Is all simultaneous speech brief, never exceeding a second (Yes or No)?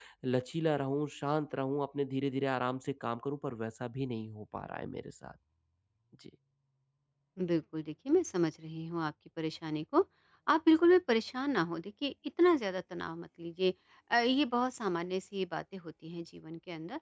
Yes